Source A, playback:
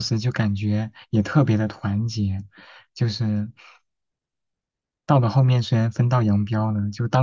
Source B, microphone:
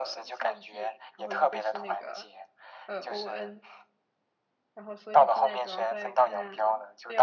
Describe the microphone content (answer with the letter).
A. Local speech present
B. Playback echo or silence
A